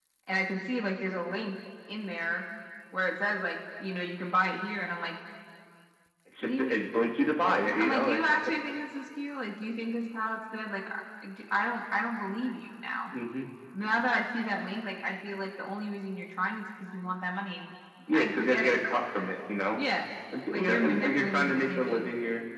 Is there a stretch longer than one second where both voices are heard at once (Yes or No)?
Yes